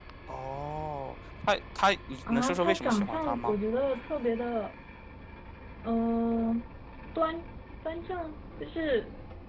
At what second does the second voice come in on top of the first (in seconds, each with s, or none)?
2.3 s